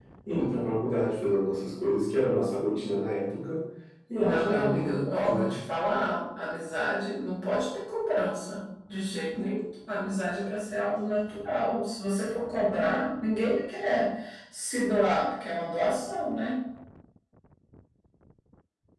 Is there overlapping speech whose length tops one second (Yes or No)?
Yes